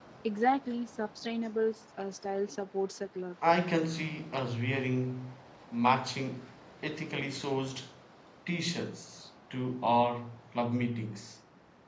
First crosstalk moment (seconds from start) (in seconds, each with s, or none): none